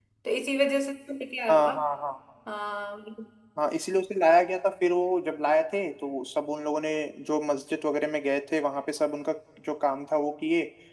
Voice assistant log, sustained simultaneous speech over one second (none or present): none